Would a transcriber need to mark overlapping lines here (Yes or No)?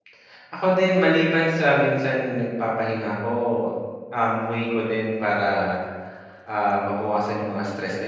No